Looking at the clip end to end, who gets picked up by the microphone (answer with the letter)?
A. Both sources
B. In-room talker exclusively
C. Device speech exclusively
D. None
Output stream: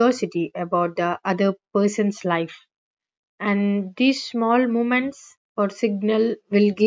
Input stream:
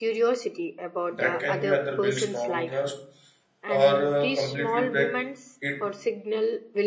A